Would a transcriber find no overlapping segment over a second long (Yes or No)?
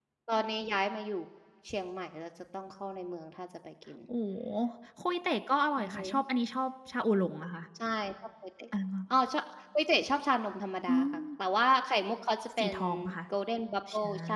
Yes